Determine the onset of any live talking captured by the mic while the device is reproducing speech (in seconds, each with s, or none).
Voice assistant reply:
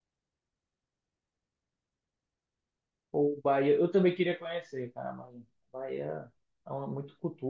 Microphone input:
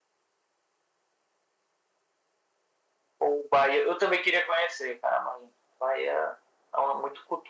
none